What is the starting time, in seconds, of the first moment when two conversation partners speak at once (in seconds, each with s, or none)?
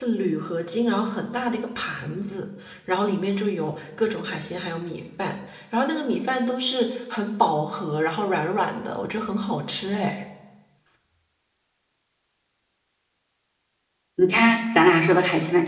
none